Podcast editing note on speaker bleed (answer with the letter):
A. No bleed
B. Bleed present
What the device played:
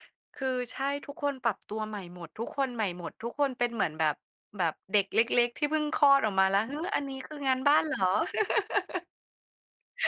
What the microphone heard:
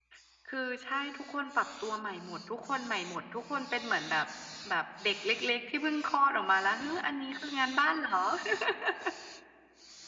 B